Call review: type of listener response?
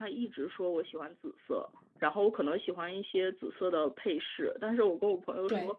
listening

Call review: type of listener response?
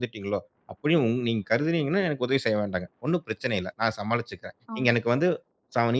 listening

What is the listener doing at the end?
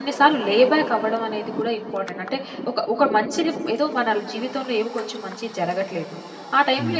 listening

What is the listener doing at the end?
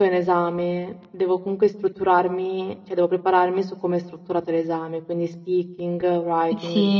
taking over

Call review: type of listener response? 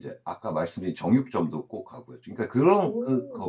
listening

